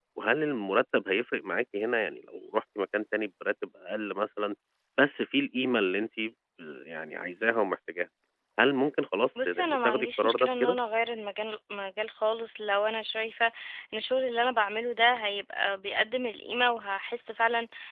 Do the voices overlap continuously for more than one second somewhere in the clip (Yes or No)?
Yes